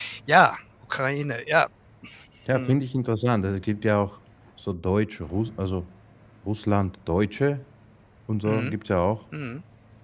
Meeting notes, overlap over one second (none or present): none